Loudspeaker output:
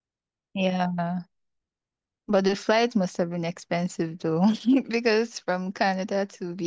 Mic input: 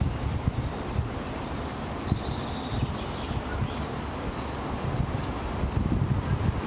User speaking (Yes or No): No